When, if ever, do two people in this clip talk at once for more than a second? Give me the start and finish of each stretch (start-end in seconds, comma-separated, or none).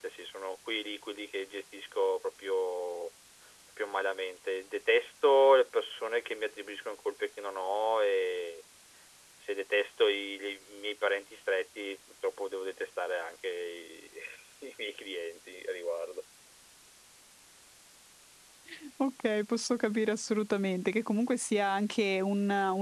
none